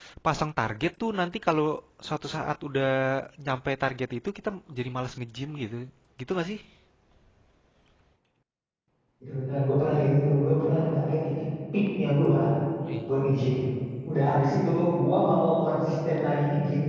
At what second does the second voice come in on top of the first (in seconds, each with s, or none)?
none